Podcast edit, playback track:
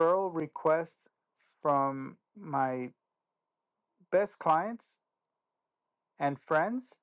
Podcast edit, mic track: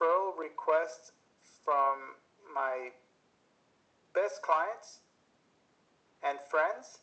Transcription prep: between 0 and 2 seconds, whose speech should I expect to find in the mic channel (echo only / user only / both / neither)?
echo only